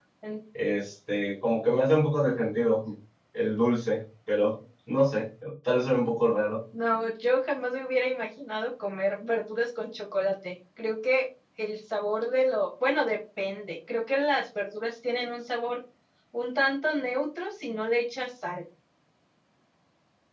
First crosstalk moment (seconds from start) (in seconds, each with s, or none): none